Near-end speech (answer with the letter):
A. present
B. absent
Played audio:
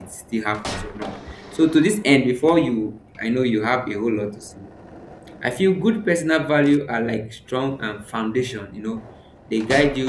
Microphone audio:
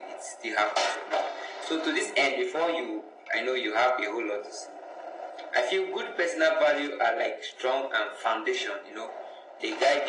B